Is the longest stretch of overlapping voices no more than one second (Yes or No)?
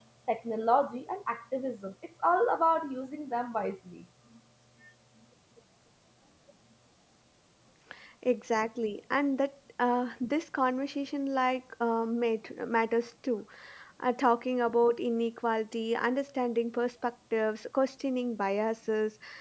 Yes